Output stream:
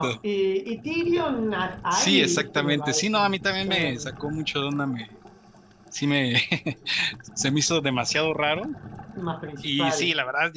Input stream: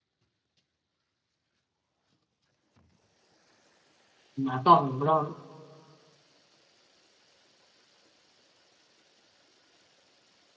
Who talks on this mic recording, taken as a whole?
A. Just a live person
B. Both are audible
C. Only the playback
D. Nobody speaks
A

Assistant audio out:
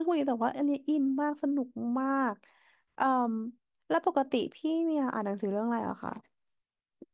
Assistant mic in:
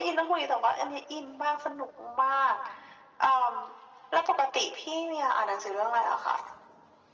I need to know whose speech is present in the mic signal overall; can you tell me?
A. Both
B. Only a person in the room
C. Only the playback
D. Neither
C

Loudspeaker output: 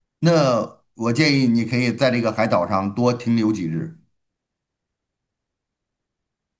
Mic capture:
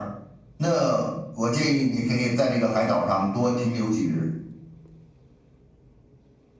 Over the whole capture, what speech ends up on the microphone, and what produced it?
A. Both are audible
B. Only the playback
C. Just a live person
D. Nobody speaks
B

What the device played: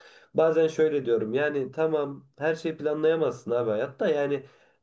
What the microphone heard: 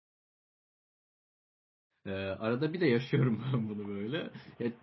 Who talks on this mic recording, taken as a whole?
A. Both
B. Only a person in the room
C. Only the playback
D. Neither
B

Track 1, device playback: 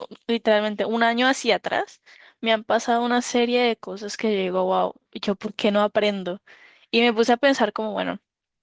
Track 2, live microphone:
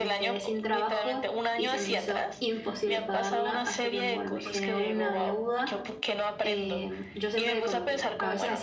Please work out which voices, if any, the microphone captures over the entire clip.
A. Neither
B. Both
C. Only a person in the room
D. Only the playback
B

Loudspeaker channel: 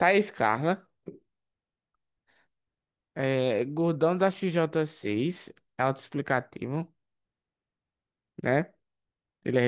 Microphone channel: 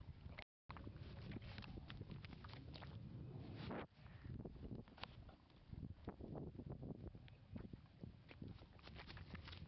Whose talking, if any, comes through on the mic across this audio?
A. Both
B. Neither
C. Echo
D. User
B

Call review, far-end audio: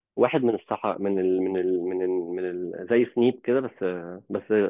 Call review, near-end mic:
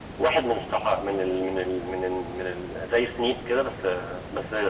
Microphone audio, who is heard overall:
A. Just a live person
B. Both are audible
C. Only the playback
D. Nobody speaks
C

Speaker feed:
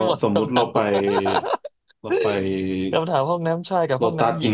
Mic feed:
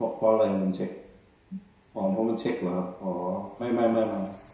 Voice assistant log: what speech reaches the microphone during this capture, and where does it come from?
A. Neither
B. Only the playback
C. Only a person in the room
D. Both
C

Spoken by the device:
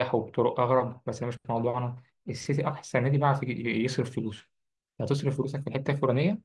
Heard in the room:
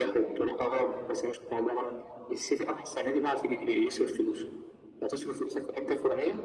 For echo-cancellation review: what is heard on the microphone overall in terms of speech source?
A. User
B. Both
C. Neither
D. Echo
D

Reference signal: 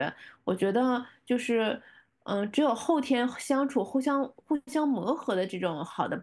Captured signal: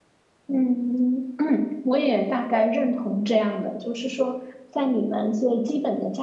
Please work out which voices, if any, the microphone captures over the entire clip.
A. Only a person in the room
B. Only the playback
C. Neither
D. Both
A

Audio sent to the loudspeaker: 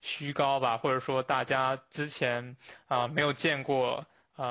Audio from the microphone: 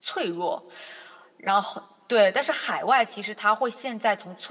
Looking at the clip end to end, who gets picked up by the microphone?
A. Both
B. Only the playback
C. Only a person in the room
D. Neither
C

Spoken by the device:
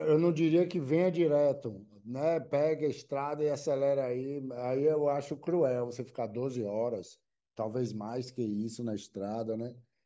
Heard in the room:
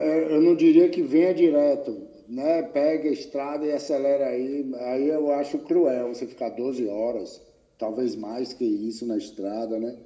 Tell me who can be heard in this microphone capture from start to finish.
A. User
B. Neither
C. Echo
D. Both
C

